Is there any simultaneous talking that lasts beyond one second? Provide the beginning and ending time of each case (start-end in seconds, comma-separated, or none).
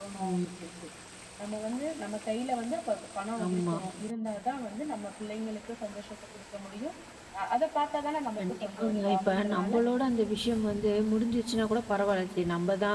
8.4-9.8